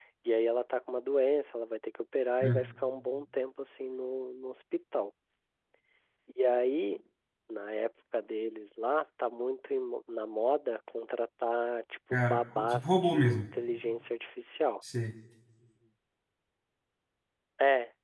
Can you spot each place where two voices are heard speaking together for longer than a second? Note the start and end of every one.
12.1-13.4

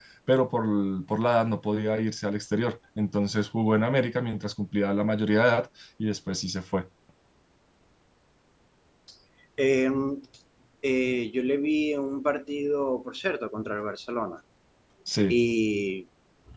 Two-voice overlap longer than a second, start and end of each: none

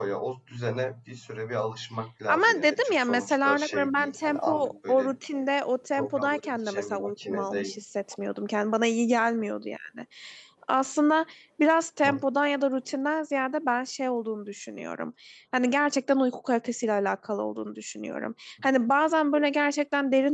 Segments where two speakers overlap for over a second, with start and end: 2.3-5.1, 6.0-7.8

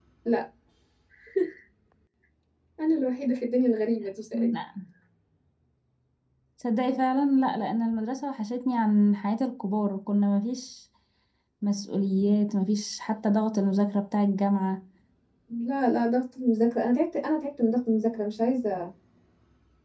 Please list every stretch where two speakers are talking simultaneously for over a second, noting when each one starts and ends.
none

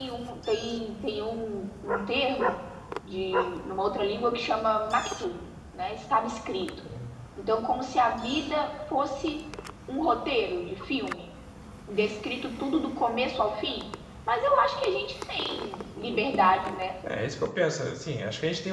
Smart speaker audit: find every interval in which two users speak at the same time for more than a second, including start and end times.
none

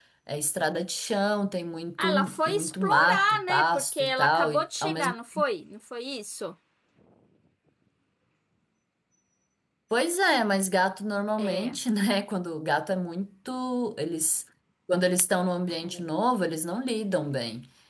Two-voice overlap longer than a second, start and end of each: 2.0-5.2

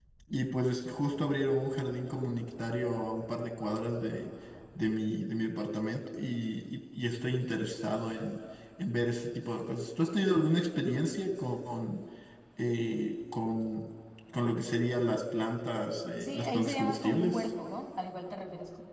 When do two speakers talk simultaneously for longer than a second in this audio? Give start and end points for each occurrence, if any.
16.1-17.4

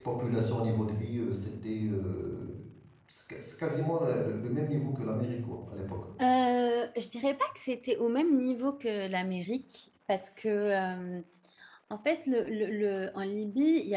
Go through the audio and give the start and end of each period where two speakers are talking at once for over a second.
none

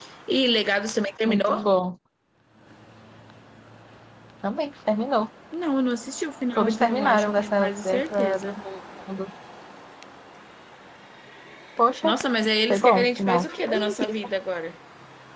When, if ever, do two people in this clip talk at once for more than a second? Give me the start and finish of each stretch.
6.5-8.6, 12.7-14.1

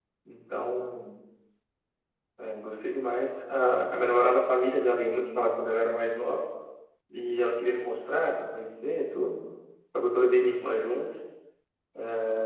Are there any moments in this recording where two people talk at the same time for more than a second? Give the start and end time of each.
none

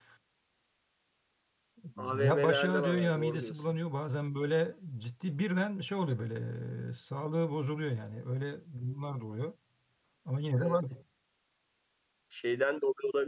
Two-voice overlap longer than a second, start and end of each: 2.2-3.6

